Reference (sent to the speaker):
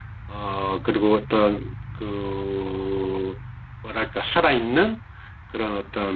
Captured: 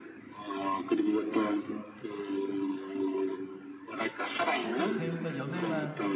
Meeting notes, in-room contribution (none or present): present